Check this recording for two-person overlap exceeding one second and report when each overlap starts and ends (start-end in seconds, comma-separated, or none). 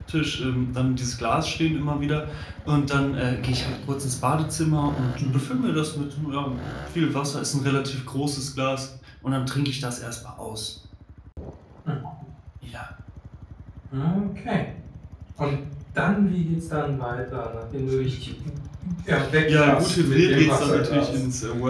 19.4-21.2